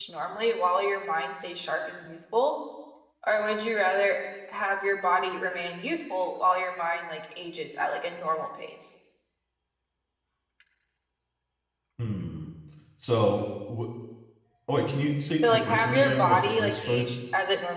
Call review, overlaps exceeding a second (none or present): present